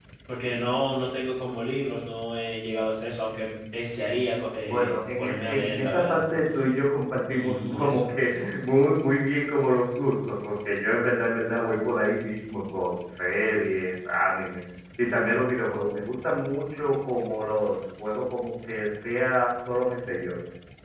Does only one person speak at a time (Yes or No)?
No